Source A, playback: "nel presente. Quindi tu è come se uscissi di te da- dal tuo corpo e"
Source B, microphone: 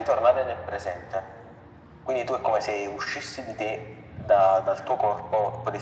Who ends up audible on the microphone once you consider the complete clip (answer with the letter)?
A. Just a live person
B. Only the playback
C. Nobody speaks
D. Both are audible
B